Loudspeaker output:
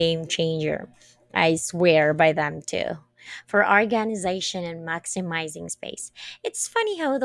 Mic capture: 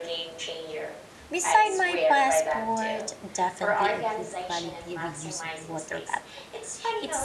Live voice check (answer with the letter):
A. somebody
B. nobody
A